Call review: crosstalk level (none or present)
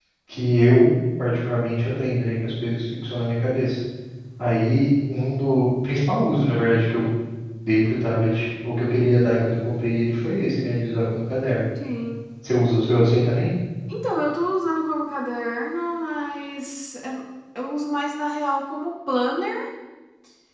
none